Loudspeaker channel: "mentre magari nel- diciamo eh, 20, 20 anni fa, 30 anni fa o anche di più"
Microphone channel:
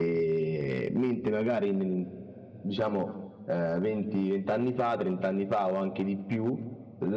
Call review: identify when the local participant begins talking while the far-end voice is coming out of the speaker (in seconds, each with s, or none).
none